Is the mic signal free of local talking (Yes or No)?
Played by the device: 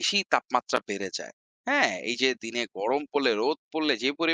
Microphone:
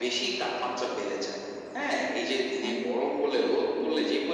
No